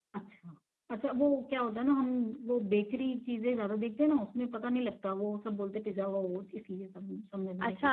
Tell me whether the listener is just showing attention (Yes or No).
No